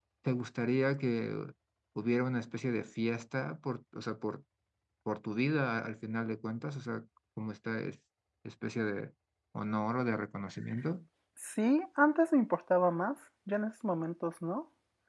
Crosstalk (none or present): none